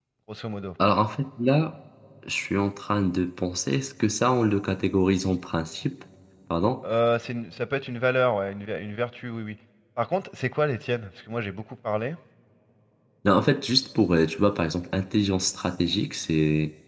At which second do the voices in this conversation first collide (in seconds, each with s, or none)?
none